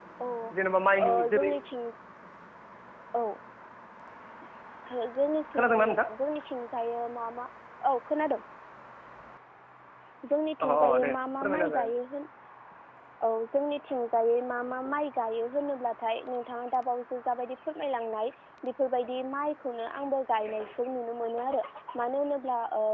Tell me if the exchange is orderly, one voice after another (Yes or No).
No